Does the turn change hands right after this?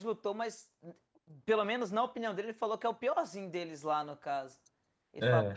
Yes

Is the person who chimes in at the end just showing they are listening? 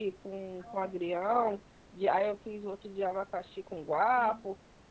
Yes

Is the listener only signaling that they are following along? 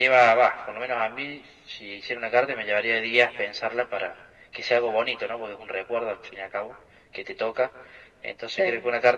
Yes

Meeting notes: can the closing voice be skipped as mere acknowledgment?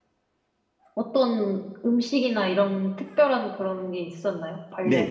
No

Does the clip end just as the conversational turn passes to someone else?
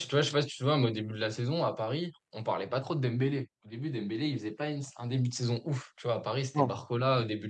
No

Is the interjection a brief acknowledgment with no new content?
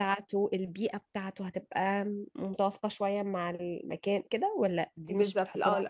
No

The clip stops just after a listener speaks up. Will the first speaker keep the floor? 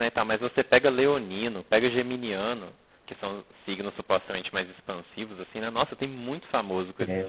No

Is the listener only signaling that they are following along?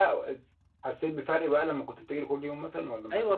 No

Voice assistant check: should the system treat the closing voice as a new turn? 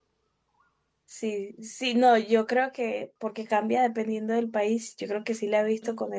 No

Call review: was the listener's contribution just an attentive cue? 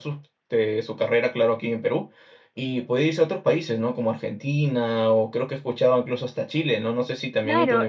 No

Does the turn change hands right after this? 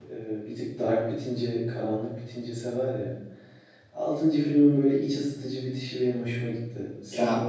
Yes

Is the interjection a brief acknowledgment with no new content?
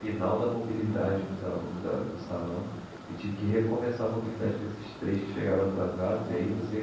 Yes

